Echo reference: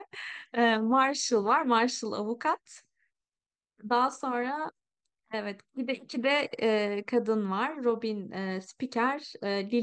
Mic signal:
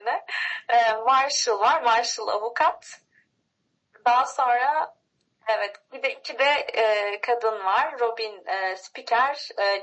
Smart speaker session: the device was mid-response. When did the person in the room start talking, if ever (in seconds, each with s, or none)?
none